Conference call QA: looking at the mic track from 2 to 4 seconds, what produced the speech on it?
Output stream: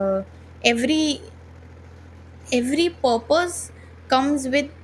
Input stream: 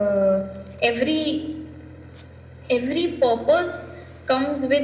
echo only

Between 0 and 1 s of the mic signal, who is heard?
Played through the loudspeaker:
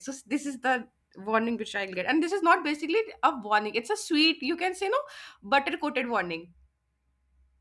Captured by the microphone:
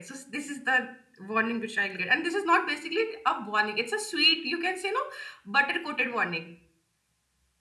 echo only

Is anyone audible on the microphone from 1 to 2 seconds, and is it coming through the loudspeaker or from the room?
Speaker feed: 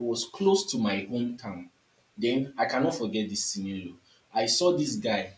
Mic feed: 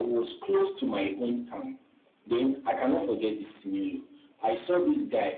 echo only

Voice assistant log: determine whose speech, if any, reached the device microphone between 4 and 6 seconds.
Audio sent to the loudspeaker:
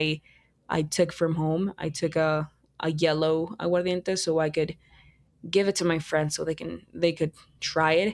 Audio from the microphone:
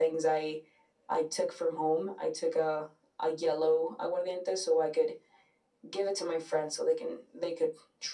echo only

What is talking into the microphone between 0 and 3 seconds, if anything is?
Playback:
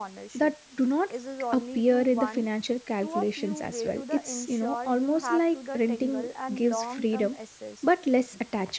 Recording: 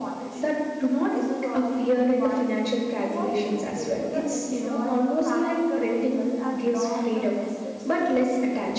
echo only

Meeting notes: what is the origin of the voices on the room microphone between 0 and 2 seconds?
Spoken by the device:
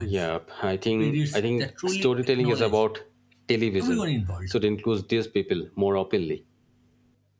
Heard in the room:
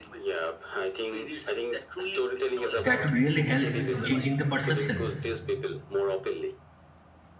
echo only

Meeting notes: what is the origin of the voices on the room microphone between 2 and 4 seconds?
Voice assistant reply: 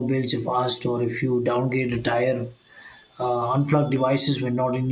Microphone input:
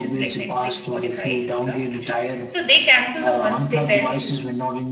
both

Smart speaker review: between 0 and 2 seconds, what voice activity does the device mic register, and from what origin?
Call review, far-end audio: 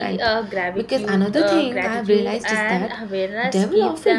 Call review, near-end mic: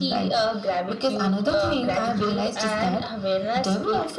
echo only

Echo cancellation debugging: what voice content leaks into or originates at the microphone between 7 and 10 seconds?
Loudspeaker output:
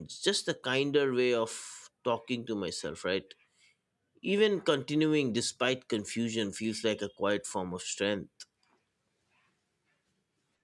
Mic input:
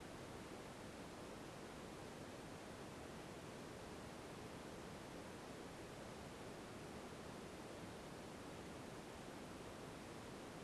neither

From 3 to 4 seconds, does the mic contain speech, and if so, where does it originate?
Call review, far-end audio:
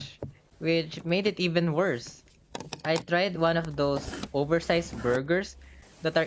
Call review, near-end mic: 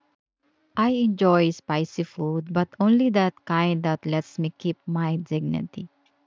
user only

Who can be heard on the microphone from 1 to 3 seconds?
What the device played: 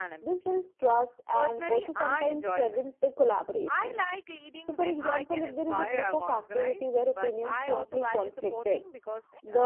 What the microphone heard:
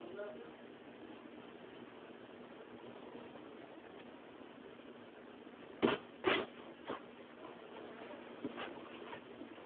neither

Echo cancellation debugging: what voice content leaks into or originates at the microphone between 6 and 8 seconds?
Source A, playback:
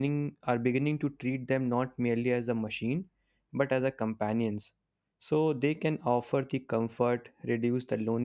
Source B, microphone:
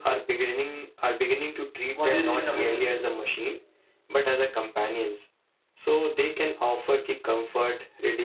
echo only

